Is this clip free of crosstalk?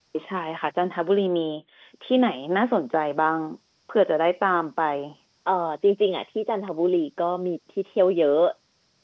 Yes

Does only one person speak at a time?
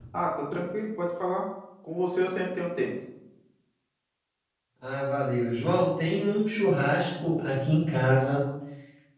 Yes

